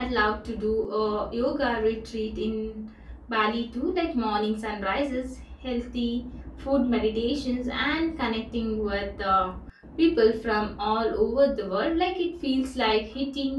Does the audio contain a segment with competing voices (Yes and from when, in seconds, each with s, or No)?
No